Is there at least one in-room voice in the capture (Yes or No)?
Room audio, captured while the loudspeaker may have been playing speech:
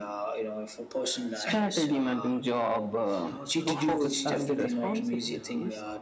Yes